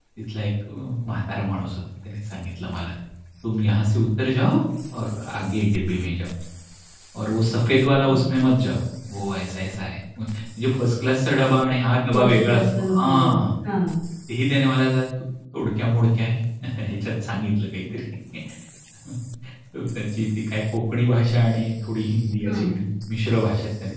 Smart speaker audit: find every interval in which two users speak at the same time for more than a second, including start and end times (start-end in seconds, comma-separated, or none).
12.1-13.5